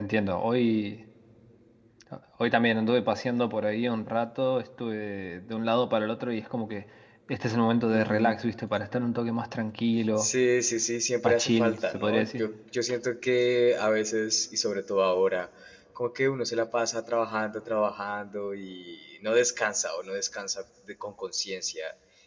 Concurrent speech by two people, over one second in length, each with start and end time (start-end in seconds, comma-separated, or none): 11.2-12.4